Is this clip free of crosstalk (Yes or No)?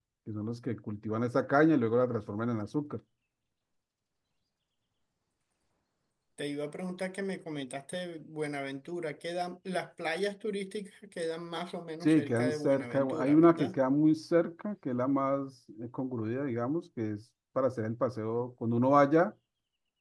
No